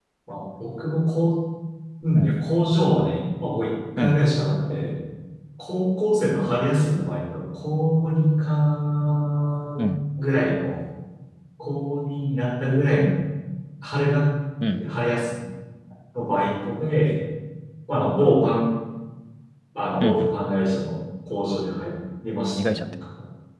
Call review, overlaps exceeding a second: none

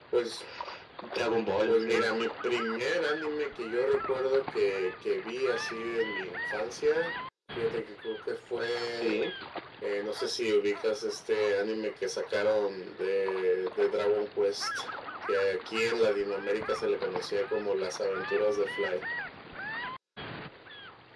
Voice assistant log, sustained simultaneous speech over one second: none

